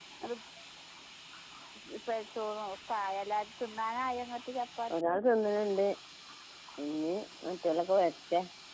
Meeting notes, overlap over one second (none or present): none